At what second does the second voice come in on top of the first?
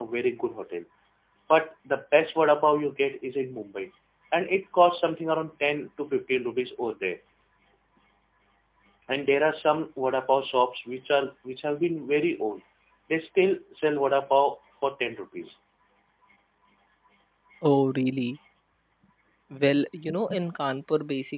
none

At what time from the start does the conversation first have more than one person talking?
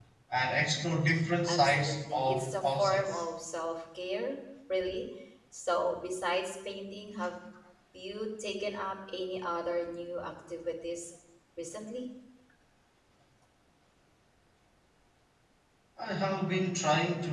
1.4 s

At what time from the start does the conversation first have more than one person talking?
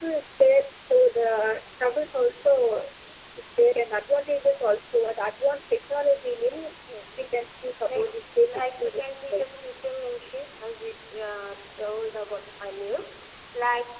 7.9 s

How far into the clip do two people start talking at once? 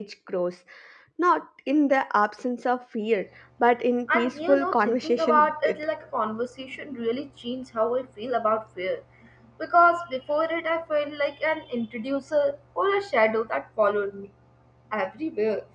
4.1 s

